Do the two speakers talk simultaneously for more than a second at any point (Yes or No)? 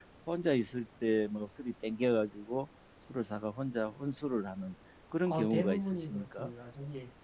Yes